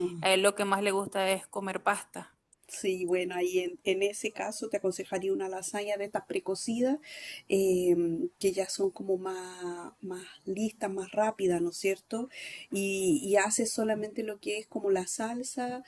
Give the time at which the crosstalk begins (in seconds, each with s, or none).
none